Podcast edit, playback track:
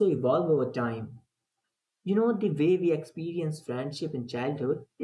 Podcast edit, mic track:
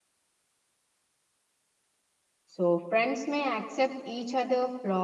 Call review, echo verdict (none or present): none